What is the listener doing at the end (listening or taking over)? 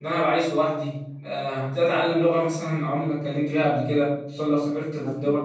listening